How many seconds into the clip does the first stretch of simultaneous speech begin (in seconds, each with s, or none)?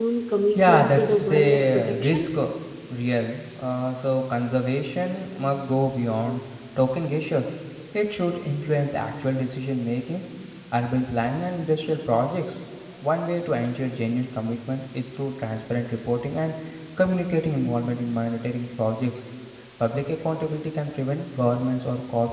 0.6 s